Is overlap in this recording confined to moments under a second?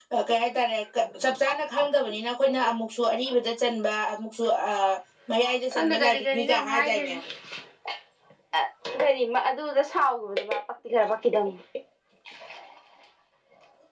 No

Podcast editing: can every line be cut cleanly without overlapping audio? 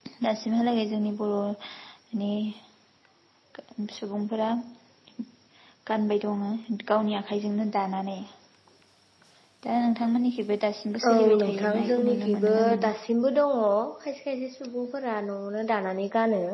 No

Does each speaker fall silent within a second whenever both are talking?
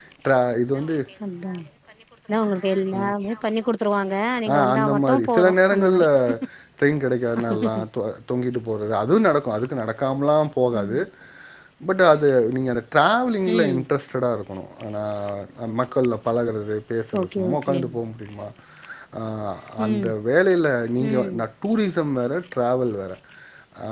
No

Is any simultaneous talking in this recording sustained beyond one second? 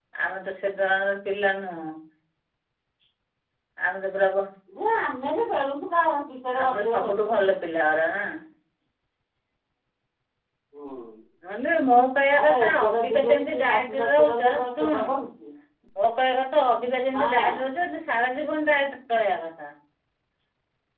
Yes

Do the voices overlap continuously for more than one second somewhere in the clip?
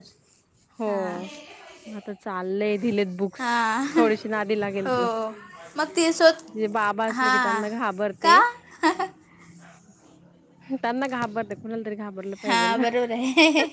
No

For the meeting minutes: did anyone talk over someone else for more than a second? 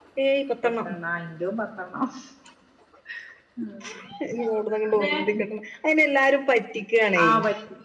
No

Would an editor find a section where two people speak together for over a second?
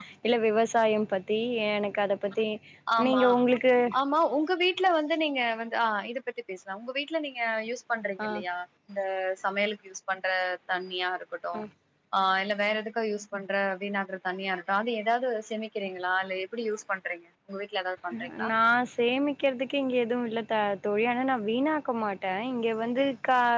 No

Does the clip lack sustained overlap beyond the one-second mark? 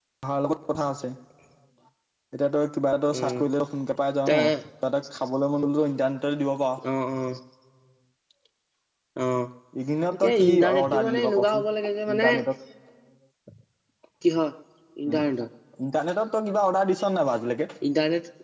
No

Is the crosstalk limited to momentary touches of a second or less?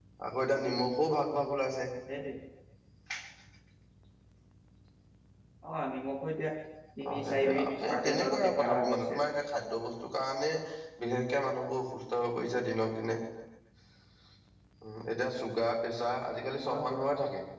No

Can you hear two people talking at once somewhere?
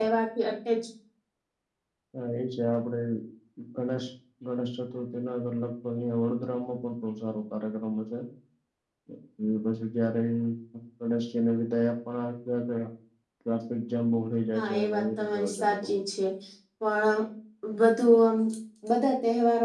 Yes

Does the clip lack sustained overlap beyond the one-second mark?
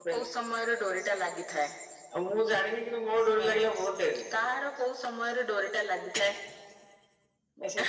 Yes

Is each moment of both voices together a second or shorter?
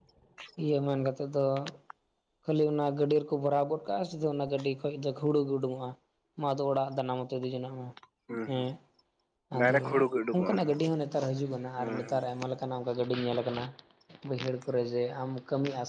Yes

